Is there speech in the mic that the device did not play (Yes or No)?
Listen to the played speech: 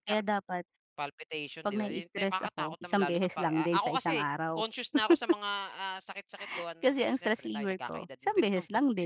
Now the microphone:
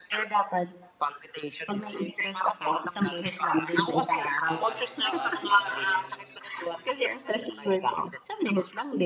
Yes